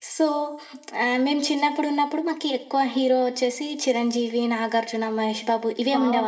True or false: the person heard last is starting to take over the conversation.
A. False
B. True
B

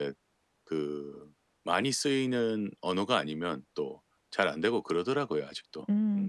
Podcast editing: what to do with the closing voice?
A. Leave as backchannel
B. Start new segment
B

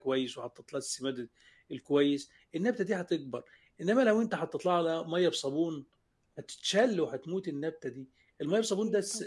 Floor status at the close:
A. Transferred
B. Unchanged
B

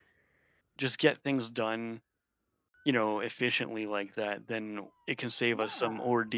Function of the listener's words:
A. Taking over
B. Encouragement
B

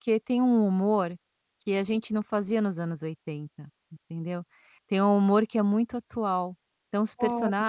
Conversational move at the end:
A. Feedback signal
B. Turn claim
A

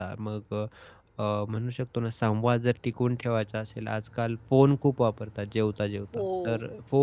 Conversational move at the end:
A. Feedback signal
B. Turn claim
A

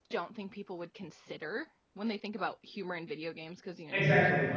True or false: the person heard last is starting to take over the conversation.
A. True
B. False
A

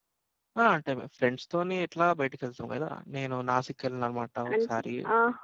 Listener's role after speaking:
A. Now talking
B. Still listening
A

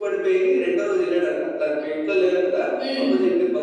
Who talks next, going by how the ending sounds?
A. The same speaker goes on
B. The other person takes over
A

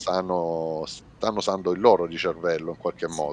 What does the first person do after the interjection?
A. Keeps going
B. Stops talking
B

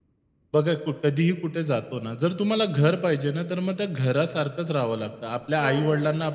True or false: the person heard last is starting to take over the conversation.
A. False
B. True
A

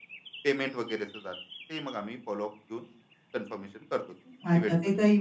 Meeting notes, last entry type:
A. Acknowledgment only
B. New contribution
B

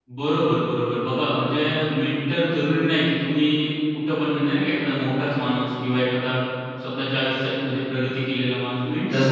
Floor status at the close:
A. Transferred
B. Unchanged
A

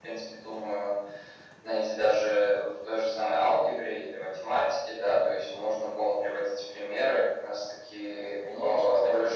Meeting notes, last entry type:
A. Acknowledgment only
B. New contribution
B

